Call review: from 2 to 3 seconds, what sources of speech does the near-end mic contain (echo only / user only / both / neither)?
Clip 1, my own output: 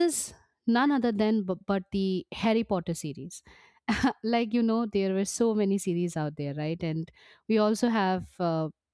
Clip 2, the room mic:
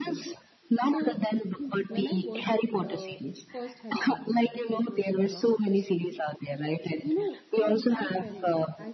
both